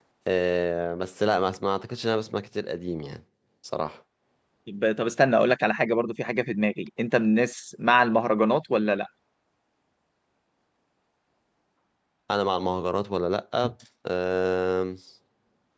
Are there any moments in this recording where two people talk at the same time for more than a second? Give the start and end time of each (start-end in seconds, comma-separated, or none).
none